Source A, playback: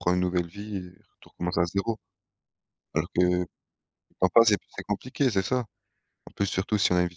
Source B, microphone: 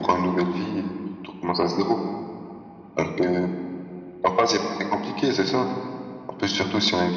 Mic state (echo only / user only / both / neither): echo only